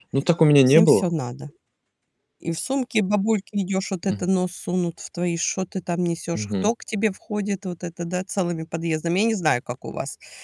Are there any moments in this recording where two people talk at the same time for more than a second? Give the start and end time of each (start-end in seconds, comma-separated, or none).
none